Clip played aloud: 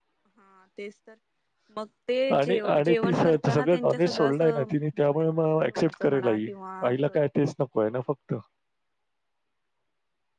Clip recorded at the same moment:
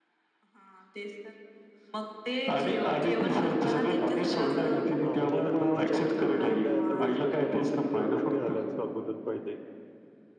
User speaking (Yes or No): Yes